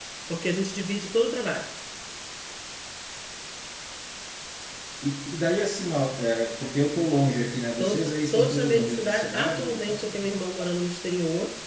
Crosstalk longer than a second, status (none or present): present